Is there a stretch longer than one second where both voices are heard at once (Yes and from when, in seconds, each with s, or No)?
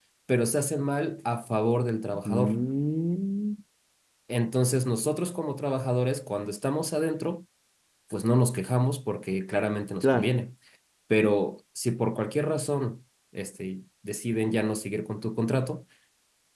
No